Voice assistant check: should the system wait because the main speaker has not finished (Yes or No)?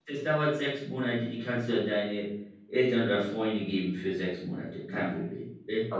No